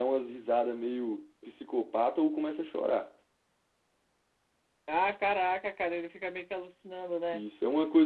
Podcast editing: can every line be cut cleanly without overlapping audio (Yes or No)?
Yes